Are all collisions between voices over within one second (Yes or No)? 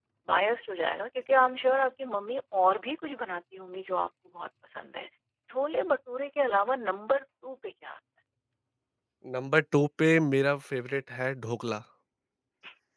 Yes